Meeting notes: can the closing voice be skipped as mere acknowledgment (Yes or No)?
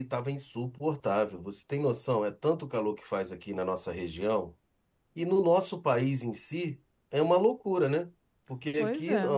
Yes